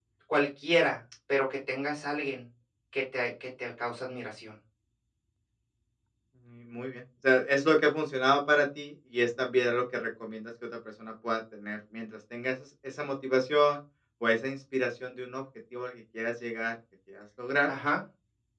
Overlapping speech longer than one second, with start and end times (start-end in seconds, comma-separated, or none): none